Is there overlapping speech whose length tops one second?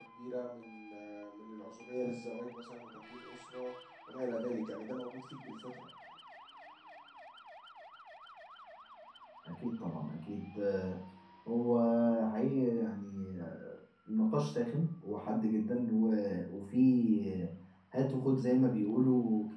No

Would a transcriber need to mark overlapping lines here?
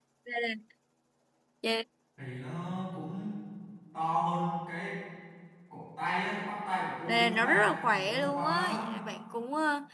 Yes, from 7.1 s

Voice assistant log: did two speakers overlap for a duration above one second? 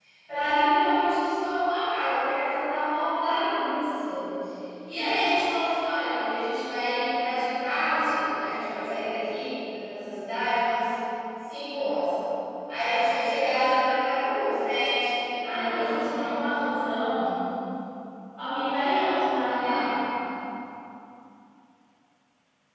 Yes, from 15.5 s

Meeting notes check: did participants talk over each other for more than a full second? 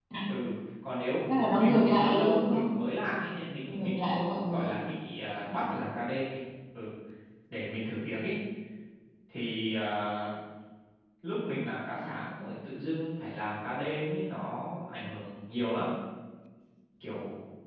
Yes, from 1.3 s

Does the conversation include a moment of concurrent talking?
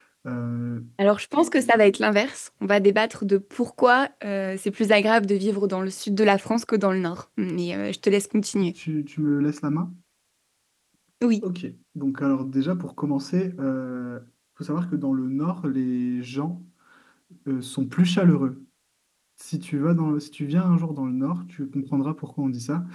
No

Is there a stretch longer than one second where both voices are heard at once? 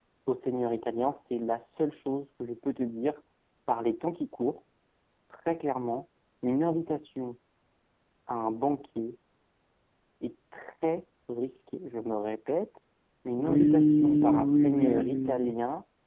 Yes, from 13.4 s

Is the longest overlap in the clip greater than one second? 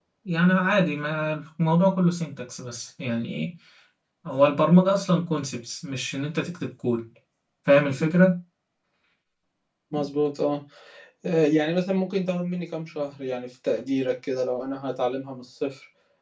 No

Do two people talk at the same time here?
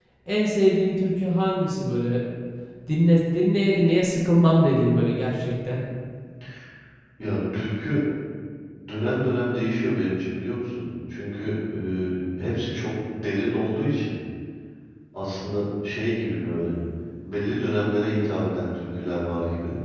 No

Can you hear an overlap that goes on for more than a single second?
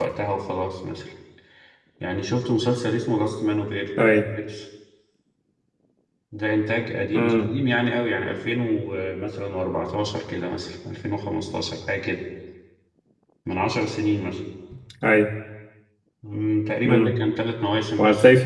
No

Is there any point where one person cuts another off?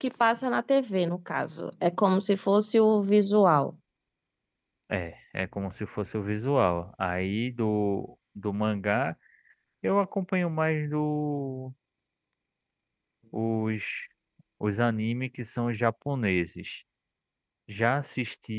No

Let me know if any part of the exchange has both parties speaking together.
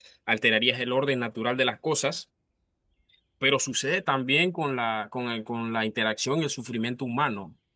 No

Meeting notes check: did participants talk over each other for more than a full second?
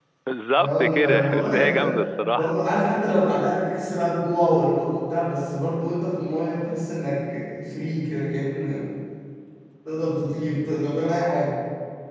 Yes, from 0.6 s

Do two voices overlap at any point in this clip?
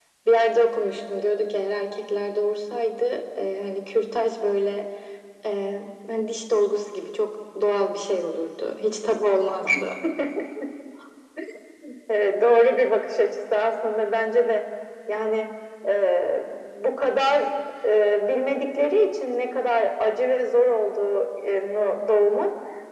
No

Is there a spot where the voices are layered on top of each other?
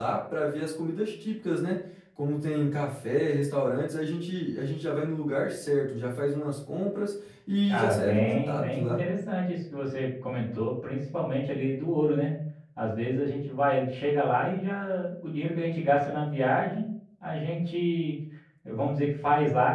Yes, from 7.7 s

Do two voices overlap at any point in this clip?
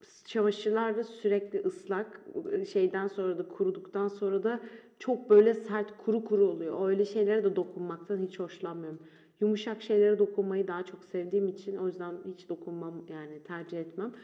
No

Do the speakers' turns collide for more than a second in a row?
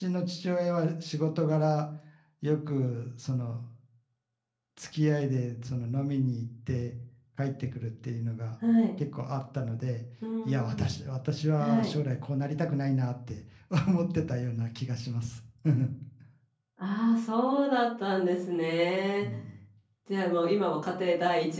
No

